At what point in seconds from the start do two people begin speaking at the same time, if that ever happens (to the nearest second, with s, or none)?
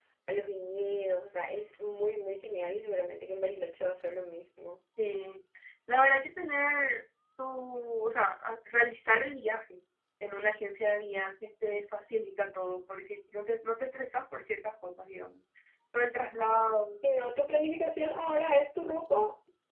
none